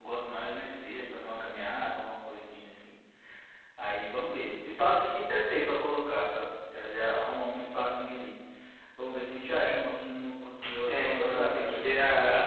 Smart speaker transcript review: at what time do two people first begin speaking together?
10.9 s

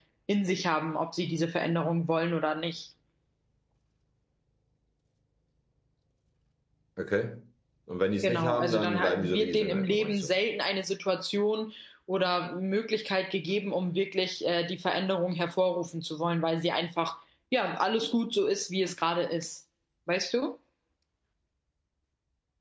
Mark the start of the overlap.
8.2 s

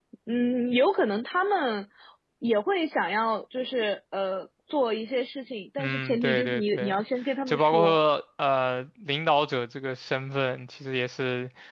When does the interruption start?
5.8 s

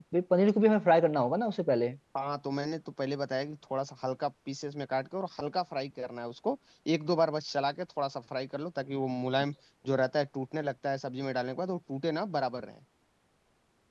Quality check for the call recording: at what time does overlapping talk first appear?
none

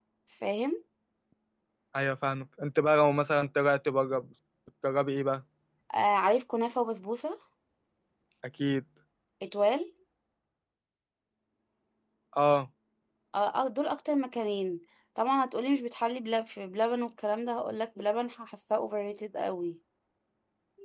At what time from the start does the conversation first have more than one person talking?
none

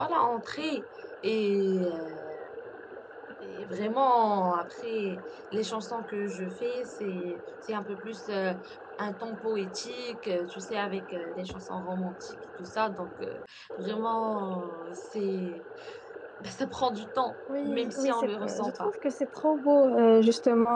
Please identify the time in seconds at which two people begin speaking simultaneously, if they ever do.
17.5 s

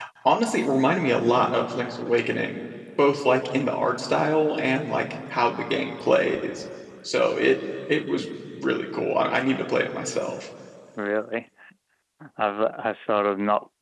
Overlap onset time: none

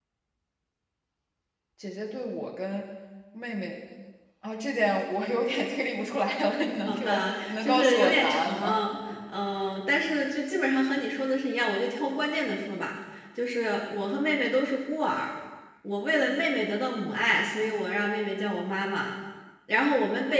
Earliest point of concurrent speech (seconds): 6.9 s

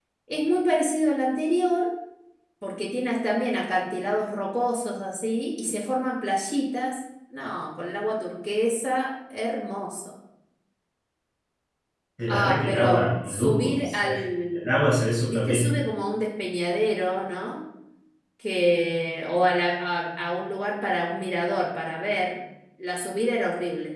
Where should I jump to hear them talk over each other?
12.3 s

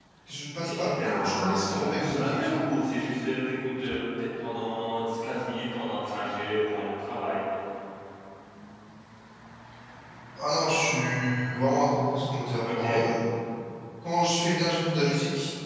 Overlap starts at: 0.6 s

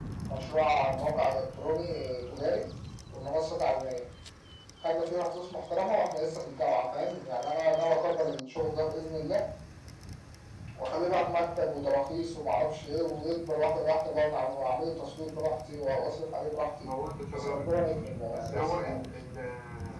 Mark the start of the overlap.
17.3 s

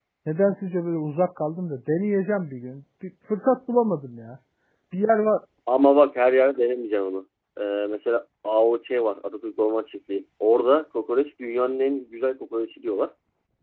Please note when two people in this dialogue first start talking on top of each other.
none

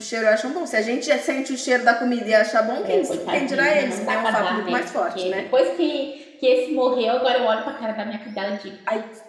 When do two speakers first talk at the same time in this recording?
2.8 s

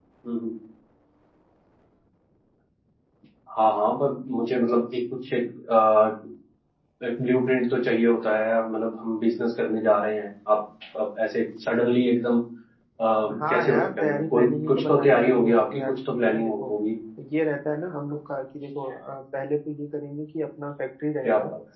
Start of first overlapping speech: 13.5 s

